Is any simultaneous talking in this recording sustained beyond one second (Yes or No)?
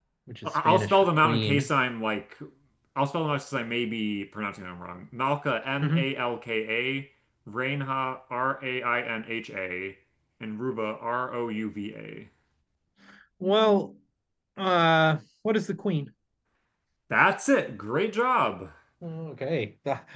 Yes